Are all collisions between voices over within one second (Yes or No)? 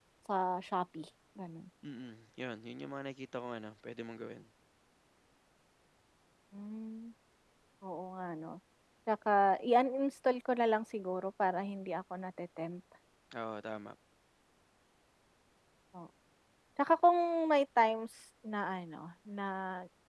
Yes